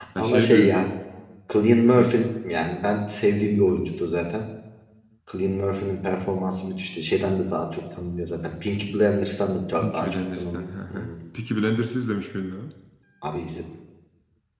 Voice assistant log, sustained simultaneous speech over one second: present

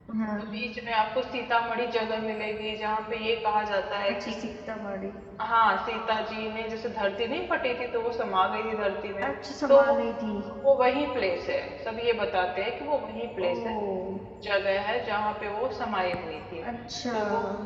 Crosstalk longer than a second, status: none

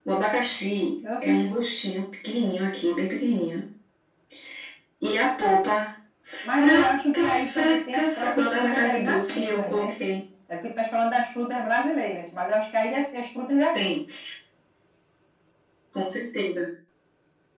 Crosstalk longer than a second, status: present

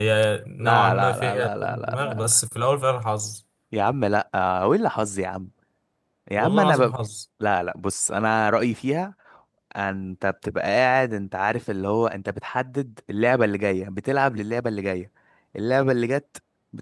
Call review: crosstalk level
present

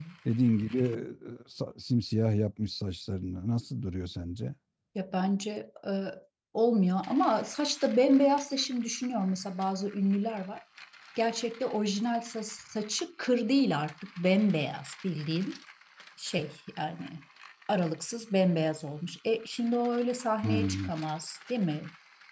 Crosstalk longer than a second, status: none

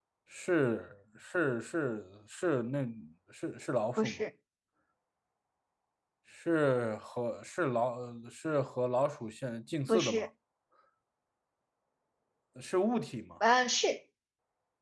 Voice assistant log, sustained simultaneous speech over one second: none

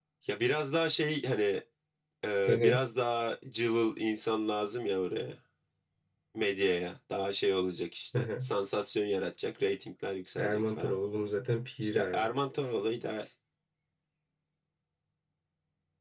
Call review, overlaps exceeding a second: none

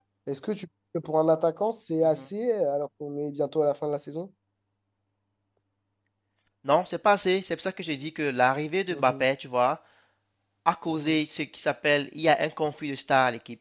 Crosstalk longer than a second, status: none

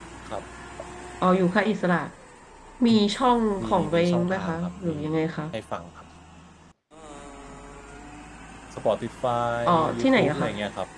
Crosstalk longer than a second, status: present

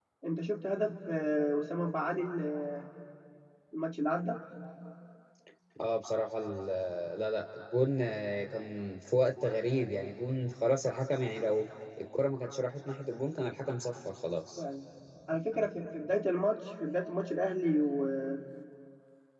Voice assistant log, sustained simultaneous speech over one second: none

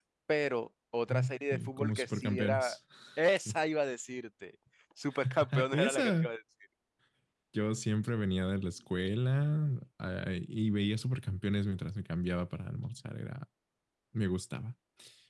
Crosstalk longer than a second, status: present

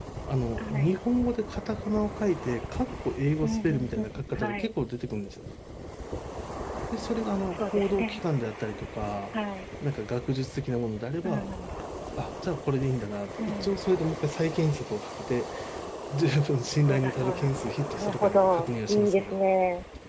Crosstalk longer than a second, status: present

